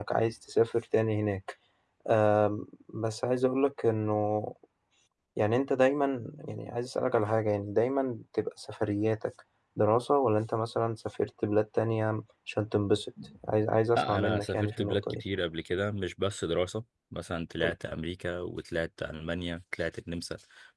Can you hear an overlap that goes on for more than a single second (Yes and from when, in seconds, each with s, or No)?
Yes, from 13.9 s